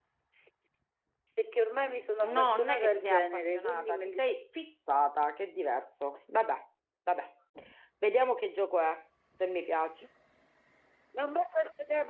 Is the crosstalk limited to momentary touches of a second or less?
No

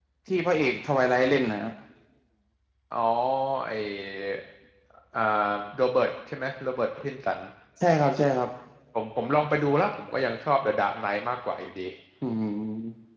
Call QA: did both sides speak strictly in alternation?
Yes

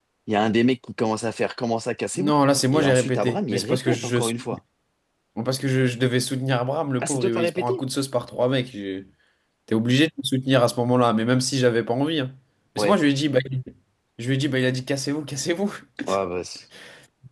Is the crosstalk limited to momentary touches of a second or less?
No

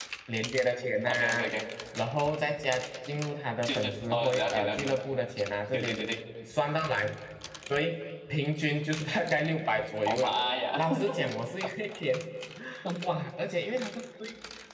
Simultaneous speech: Yes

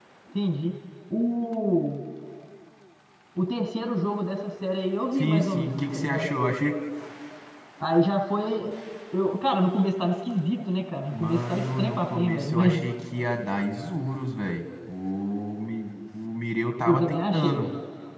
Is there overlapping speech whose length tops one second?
Yes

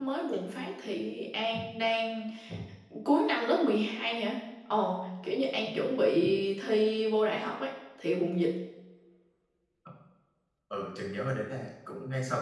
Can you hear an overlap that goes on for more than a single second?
No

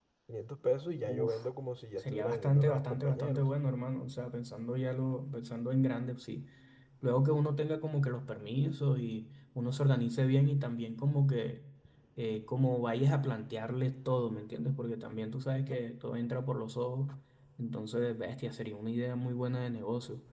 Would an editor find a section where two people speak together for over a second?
Yes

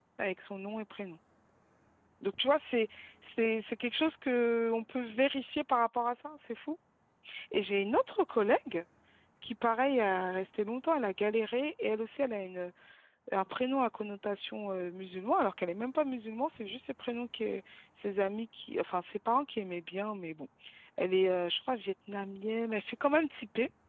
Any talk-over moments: No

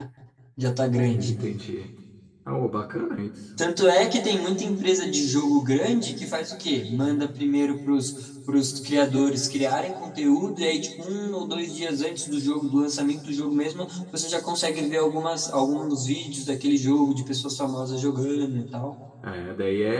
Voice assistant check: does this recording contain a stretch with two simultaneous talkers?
No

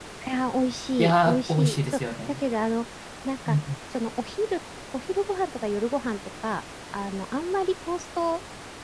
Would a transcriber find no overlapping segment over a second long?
No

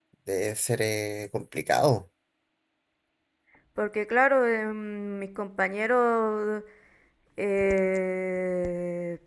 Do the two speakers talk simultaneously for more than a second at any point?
No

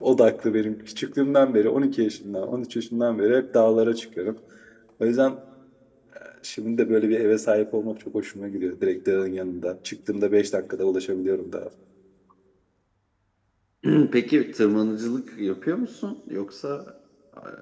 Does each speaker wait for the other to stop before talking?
Yes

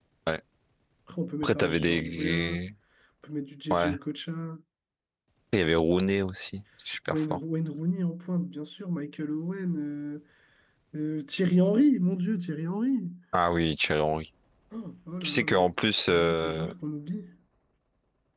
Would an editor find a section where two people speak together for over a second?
Yes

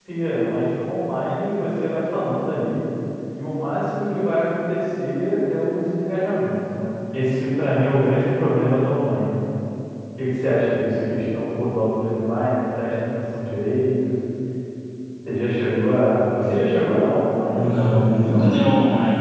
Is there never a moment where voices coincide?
No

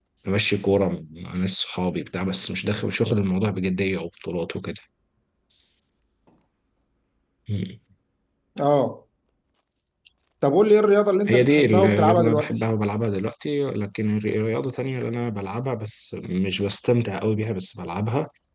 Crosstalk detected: Yes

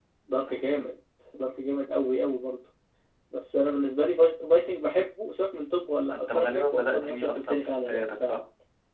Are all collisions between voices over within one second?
No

